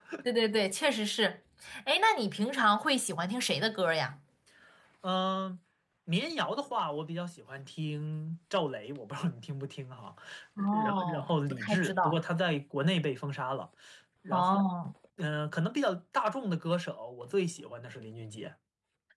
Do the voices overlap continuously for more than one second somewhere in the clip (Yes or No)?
Yes